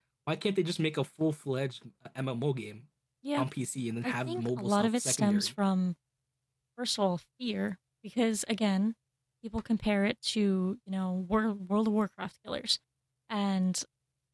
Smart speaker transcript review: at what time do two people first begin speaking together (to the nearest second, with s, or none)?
4 s